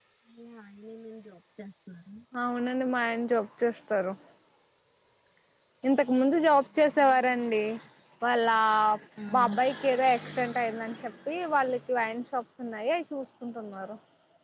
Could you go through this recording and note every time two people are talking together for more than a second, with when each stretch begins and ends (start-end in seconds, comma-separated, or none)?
none